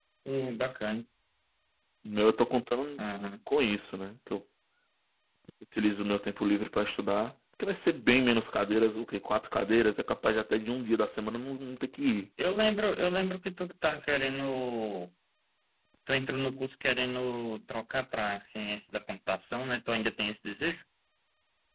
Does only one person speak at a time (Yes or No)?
Yes